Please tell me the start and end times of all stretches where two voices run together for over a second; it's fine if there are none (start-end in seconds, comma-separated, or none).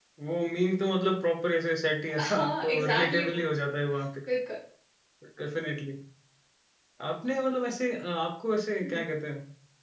2.2-3.4